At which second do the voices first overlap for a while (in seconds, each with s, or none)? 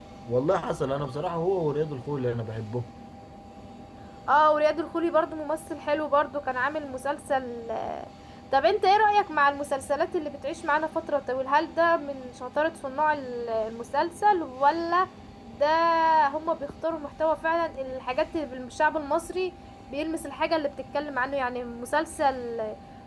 none